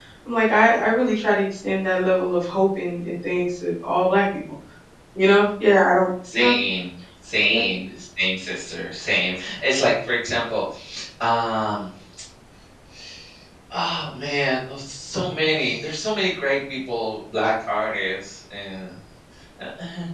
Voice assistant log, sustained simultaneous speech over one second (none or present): none